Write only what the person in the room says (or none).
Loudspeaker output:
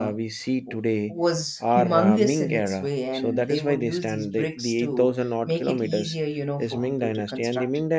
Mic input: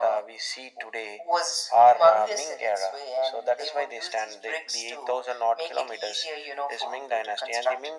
none